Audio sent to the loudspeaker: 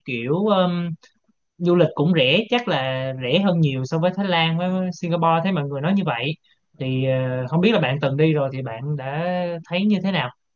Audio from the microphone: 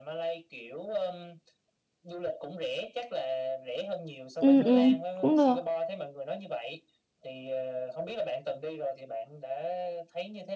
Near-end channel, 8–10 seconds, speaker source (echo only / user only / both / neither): echo only